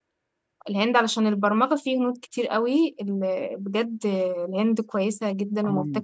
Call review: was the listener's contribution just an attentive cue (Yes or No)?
No